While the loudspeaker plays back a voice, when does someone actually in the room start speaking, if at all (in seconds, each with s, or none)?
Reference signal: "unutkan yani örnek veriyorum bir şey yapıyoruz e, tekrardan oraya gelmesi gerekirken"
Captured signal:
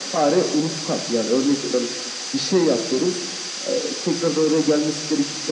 none